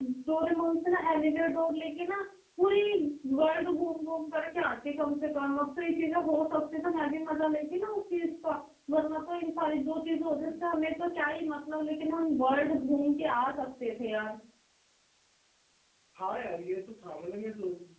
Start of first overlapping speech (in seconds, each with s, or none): none